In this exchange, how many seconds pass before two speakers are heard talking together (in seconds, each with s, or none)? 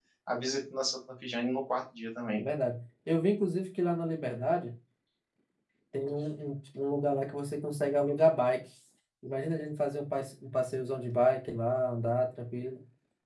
none